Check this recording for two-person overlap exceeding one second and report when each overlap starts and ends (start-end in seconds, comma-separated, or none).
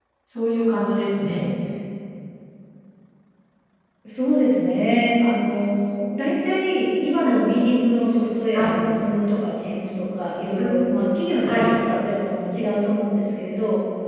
none